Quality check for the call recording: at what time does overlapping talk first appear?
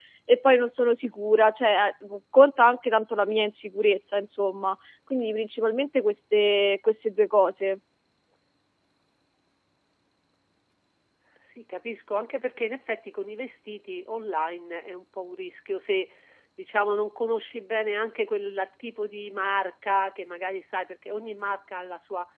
none

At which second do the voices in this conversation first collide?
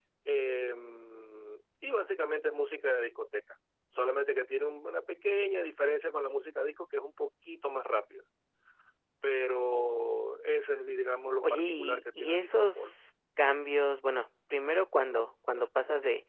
11 s

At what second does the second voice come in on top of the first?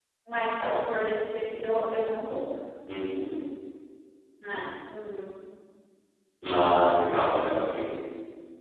none

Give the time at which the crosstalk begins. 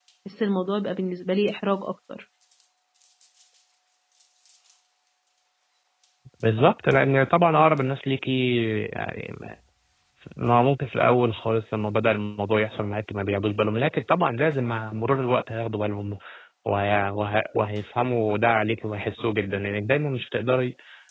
none

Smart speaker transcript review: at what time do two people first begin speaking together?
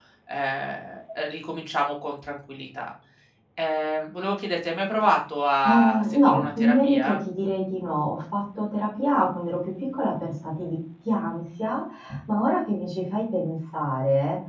6 s

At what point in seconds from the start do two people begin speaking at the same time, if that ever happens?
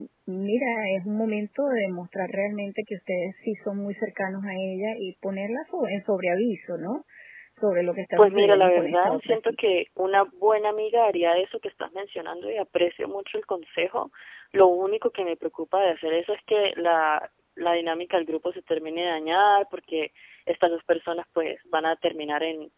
8 s

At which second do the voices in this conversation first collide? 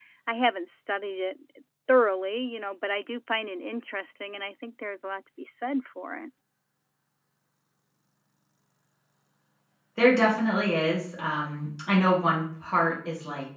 none

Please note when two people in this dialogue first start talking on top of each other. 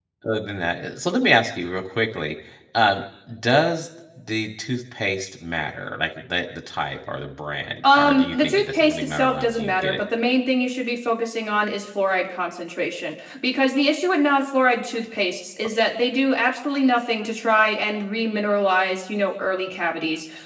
8 s

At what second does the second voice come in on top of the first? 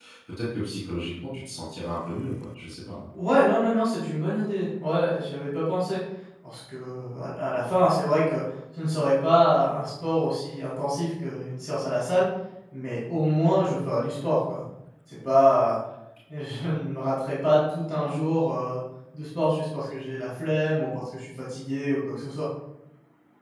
none

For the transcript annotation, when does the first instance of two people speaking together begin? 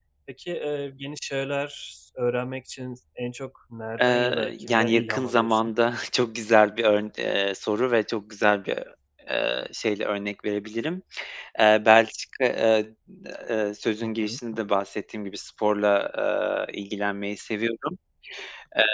4 s

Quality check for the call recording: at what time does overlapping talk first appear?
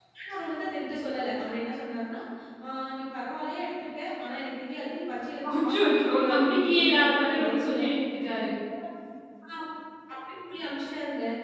5 s

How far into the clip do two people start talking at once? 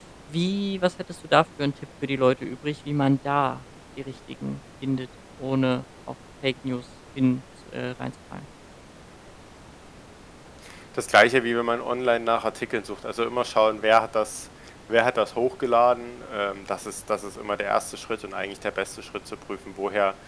none

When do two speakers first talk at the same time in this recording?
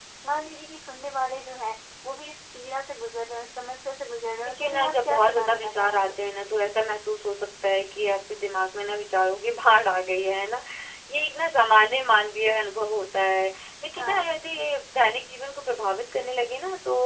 4 s

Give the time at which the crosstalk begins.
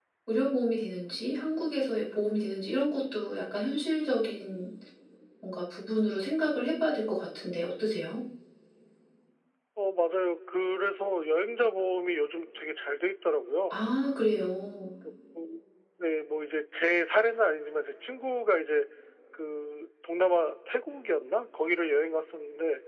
none

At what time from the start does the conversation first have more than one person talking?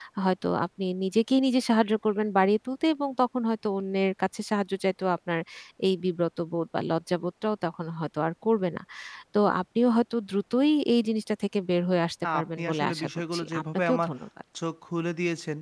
12 s

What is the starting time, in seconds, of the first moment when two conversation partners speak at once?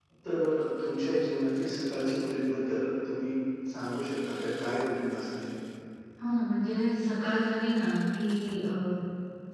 none

